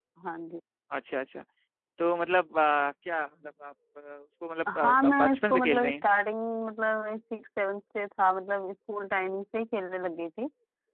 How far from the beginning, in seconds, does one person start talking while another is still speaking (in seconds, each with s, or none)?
4.7 s